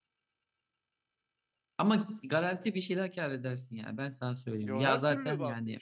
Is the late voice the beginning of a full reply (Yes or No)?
Yes